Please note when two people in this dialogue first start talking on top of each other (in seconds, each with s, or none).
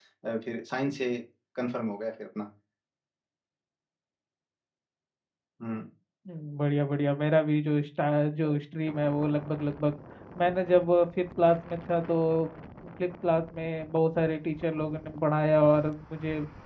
none